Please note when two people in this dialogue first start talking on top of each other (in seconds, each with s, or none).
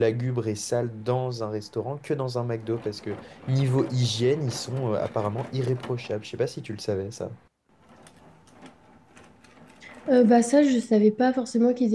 none